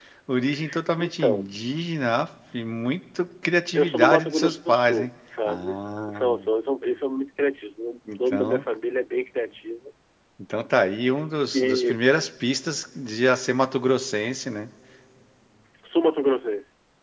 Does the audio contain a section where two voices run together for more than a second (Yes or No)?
Yes